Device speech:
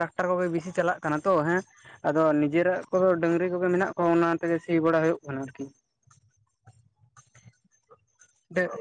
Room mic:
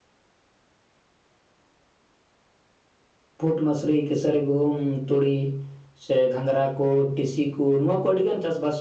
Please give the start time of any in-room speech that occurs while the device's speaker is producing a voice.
3.4 s

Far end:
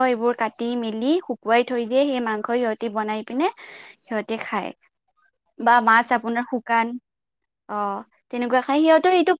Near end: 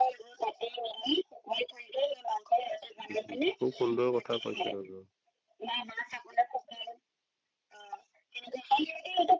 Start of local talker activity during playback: 3.1 s

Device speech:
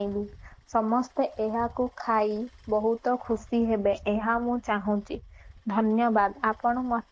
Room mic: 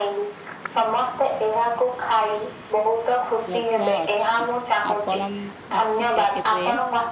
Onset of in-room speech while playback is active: 3.5 s

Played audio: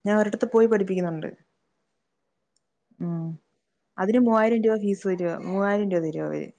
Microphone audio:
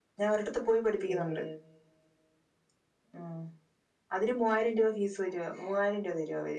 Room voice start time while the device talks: 1.1 s

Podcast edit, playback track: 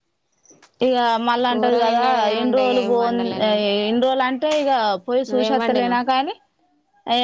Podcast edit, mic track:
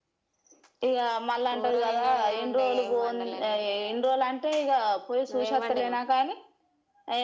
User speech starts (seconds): none

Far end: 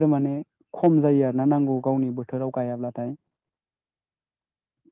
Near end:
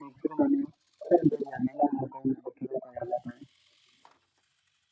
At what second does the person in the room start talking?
none

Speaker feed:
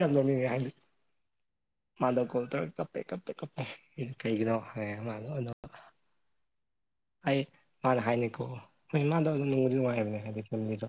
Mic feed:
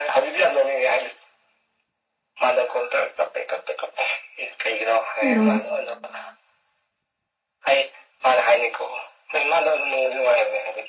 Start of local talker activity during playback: 5.2 s

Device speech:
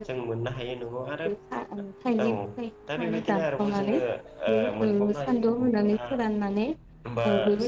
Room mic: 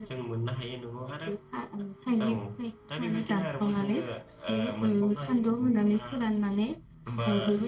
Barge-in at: none

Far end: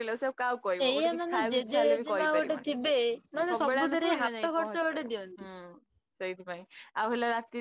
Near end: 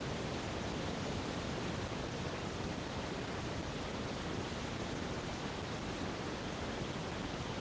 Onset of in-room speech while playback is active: none

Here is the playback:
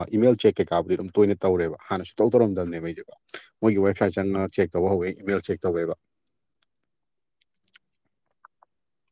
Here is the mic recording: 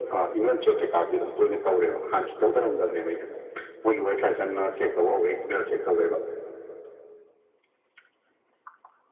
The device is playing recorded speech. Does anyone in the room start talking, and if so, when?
none

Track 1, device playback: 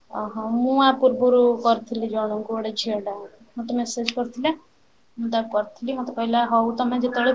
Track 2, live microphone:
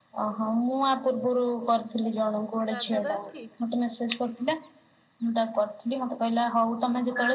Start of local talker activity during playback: 2.7 s

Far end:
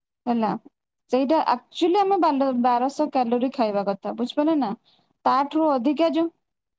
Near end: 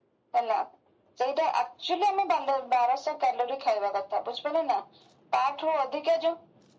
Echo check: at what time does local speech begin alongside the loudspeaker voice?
none

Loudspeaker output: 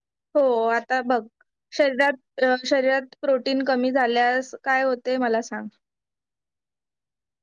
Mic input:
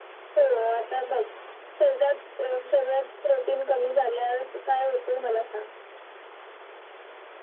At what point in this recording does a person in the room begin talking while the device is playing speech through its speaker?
none

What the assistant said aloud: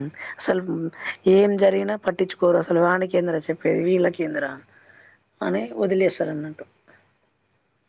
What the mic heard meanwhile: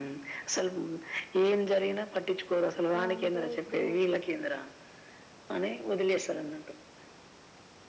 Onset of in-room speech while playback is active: 3.0 s

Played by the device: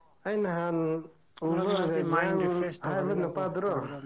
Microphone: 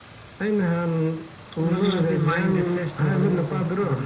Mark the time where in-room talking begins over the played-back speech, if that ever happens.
none

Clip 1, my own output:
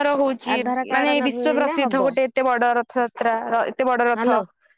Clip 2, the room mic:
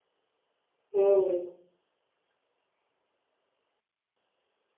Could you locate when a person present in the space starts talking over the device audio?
0.9 s

